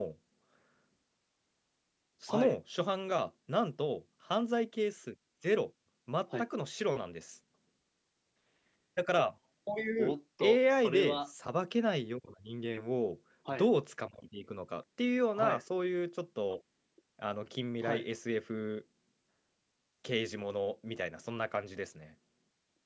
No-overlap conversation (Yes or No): No